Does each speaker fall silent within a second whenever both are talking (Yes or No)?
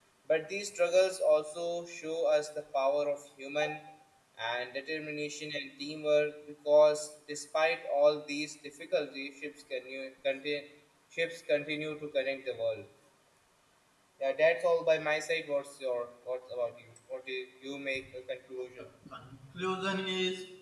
Yes